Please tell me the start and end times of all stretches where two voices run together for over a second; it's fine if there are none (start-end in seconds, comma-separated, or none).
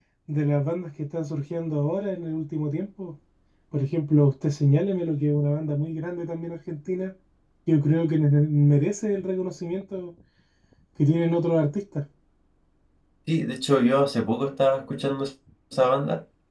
none